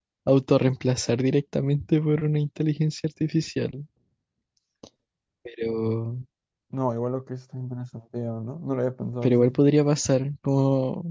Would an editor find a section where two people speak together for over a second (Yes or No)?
No